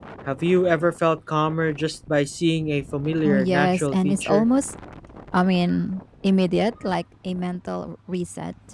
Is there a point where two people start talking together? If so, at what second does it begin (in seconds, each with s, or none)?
3.2 s